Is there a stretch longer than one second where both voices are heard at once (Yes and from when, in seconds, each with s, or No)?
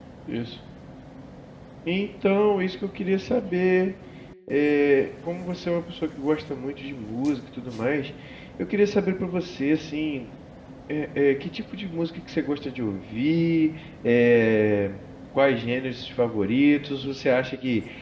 No